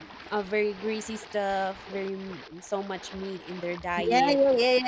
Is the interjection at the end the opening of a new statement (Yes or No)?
Yes